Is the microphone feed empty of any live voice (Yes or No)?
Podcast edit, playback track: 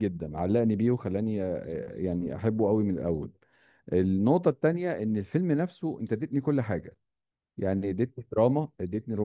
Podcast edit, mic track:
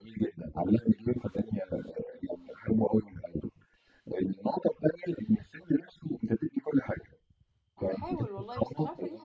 No